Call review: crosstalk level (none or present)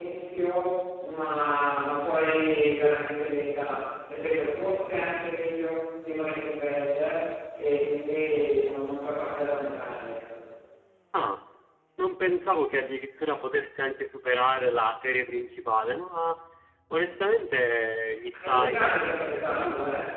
present